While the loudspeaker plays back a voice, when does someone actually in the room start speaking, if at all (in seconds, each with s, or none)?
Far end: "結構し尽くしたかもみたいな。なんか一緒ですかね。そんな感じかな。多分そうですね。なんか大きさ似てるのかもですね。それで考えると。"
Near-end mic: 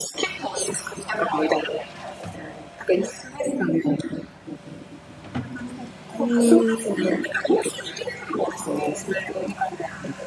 6.2 s